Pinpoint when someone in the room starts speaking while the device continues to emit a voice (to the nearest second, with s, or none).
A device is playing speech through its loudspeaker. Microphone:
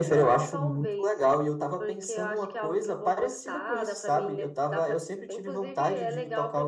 none